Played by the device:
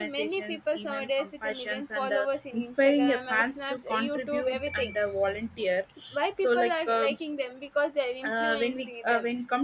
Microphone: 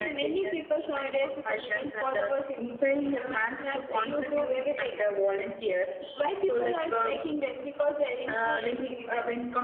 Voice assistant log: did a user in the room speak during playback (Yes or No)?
No